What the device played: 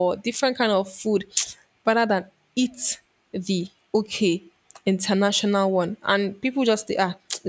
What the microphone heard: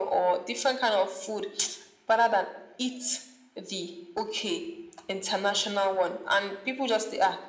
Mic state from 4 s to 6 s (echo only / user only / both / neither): echo only